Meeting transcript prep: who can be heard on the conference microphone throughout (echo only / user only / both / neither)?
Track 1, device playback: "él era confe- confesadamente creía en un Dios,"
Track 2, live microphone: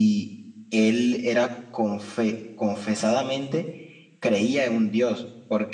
echo only